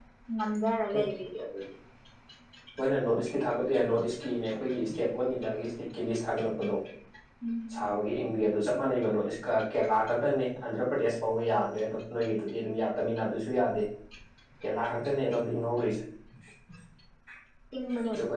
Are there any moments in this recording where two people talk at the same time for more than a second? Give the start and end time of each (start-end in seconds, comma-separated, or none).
none